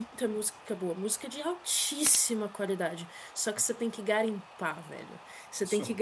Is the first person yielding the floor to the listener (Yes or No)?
No